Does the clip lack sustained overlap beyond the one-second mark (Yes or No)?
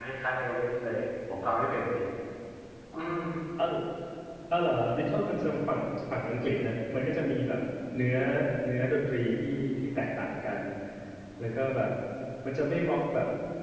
Yes